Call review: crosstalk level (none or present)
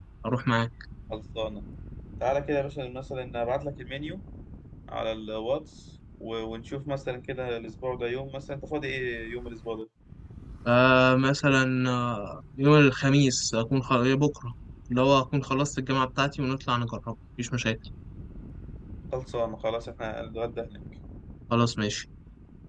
none